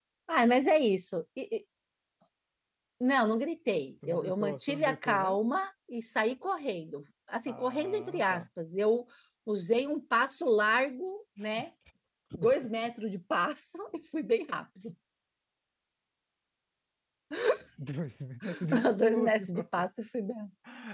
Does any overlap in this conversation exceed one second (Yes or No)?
Yes